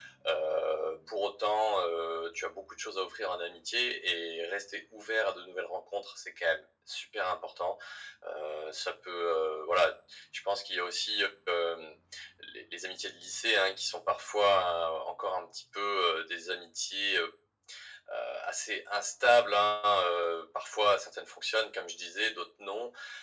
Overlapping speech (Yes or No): No